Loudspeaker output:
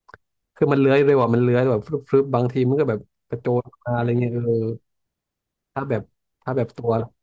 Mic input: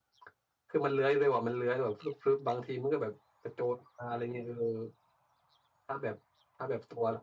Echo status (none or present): present